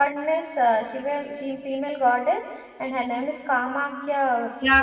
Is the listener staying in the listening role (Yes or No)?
No